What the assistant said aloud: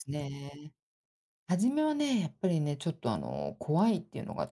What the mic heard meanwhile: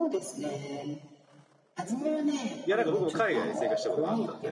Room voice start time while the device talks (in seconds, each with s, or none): 2.6 s